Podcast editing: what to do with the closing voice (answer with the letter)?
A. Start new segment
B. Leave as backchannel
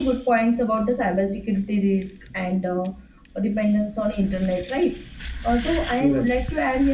B